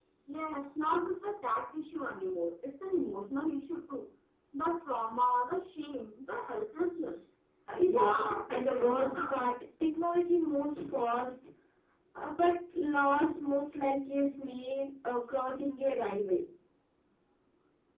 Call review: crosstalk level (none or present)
present